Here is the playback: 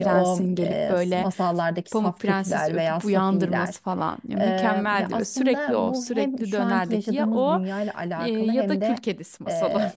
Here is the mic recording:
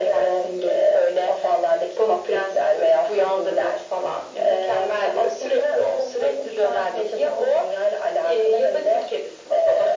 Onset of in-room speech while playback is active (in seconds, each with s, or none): none